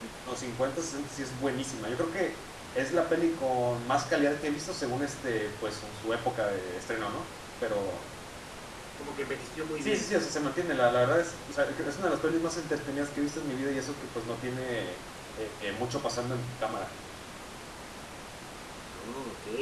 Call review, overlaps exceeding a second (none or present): none